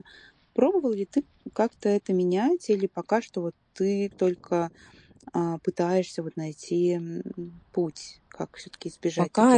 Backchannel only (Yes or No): No